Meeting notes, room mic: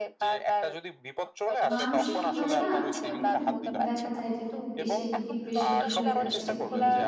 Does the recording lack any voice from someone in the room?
No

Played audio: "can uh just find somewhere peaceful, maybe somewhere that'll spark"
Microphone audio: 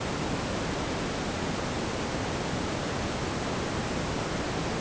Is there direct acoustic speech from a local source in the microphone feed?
No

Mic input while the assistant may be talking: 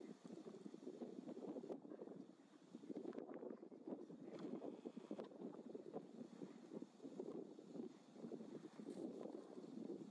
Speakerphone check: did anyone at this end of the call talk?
No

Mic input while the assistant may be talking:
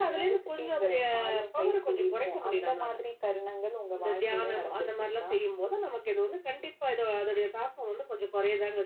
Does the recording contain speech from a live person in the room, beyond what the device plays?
No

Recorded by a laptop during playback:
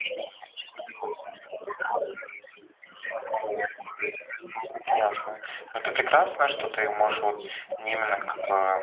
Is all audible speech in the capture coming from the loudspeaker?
No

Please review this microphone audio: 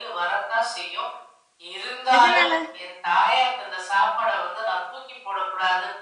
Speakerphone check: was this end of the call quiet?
No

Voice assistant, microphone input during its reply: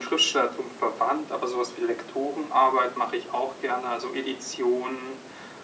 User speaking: No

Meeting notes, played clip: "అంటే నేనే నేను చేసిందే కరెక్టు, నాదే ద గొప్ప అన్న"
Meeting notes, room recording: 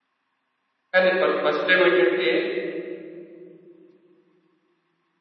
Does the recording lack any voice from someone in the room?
No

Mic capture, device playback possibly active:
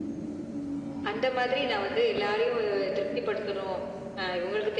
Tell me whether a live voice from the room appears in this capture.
No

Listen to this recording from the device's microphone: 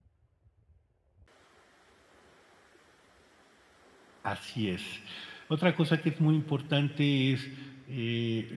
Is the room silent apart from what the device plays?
No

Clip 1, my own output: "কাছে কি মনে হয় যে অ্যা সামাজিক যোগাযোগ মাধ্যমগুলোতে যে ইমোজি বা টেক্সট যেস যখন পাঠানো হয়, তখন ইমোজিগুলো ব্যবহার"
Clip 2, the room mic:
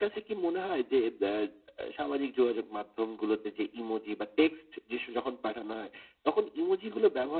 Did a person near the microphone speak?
No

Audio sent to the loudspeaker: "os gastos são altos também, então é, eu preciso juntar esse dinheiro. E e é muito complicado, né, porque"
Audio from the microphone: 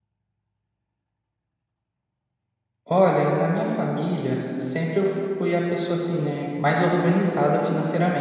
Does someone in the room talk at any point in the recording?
Yes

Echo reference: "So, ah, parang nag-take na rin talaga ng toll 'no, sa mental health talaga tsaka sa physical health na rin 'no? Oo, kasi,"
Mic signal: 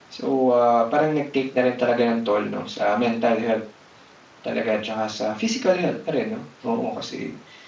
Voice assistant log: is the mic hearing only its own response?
Yes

